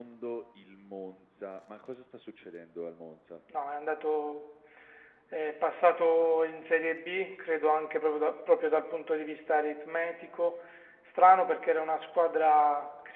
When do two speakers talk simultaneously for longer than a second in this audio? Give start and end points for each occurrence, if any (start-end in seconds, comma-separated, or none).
none